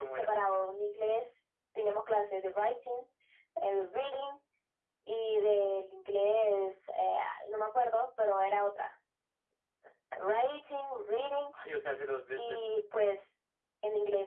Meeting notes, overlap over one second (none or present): none